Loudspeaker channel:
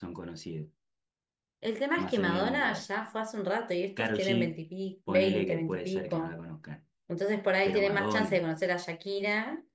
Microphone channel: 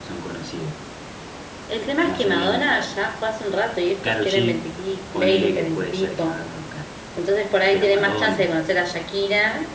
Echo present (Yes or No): Yes